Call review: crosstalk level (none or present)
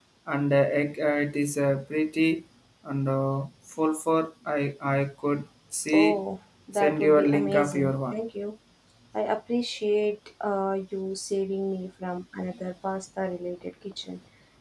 present